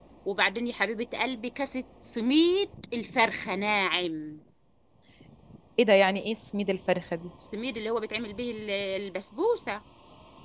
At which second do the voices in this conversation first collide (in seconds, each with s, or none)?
none